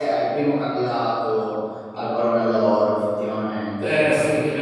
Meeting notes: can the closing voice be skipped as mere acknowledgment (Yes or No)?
No